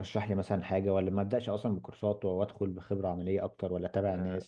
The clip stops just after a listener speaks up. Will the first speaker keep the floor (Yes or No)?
No